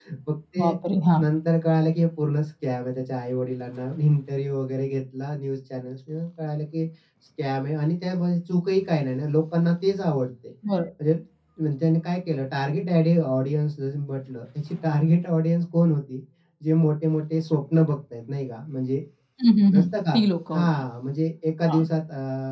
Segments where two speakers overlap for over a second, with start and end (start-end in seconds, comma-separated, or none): none